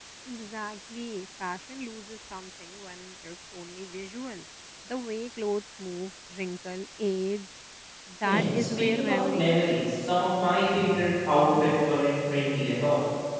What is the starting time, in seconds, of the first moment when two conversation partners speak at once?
8 s

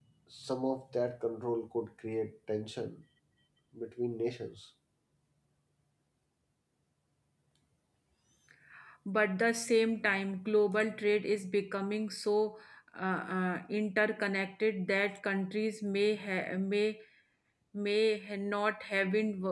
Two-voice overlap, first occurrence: none

